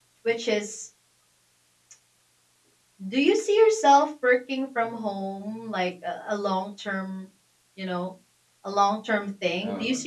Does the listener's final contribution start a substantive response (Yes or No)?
No